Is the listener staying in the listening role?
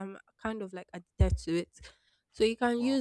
Yes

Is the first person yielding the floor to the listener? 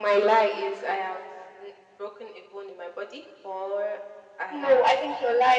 Yes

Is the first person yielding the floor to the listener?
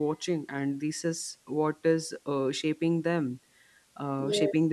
No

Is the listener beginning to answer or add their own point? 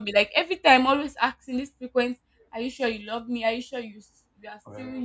No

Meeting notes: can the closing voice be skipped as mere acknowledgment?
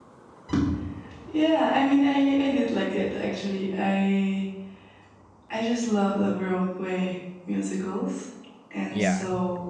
Yes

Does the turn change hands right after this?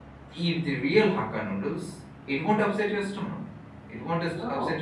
No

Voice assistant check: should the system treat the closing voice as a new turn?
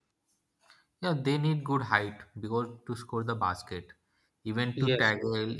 No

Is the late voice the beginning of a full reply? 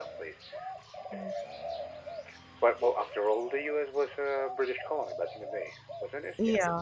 Yes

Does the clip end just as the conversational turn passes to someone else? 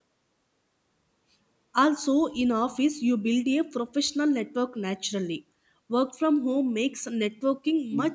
Yes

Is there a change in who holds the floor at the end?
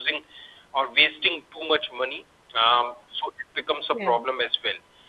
No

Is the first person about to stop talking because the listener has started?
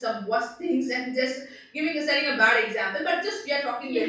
No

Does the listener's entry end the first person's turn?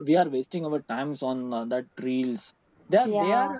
No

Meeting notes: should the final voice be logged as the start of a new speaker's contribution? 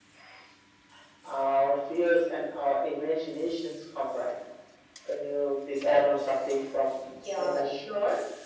Yes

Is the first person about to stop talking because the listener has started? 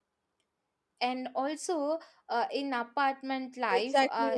Yes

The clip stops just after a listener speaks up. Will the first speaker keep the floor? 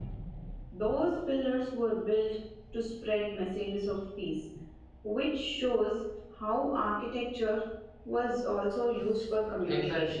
No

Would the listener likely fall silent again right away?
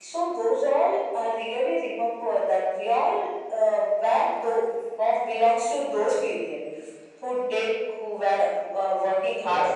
Yes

